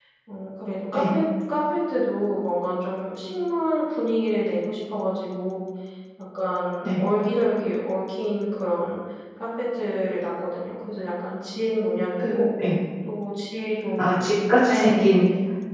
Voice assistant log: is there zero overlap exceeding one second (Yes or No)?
Yes